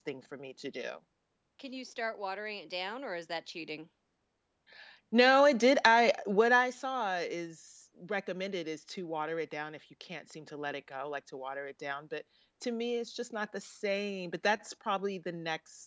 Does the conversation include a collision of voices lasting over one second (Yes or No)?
No